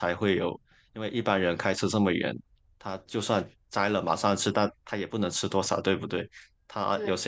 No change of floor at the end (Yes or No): Yes